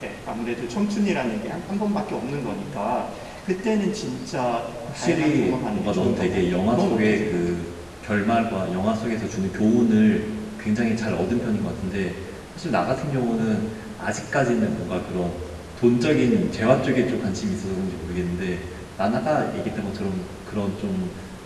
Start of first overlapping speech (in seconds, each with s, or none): 4.9 s